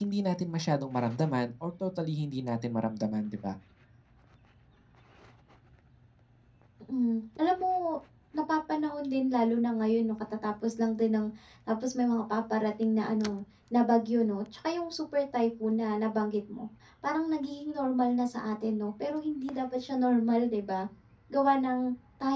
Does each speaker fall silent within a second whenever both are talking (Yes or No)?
Yes